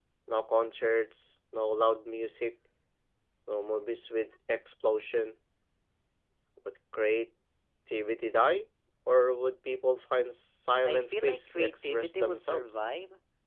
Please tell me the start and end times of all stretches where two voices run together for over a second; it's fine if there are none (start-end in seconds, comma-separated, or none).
10.8-12.8